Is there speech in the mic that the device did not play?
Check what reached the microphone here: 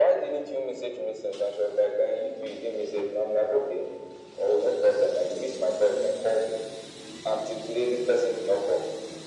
No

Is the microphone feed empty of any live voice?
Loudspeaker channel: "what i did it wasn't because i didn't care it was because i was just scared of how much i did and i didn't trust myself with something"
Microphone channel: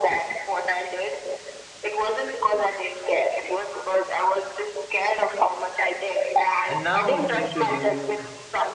No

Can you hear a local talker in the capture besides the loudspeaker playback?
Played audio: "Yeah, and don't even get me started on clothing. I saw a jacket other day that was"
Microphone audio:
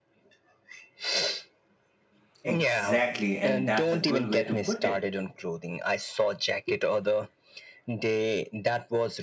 Yes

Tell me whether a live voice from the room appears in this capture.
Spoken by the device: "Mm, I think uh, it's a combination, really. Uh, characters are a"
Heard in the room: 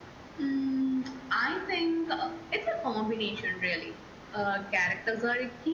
No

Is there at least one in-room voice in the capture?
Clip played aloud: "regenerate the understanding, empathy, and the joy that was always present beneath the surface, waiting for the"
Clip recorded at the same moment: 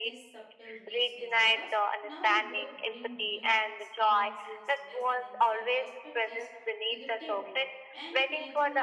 Yes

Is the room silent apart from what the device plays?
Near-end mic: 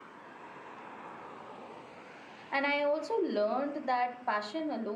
No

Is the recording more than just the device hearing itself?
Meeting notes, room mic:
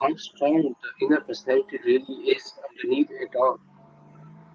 No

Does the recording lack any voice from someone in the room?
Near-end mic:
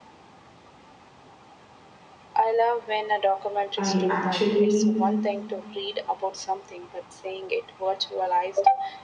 No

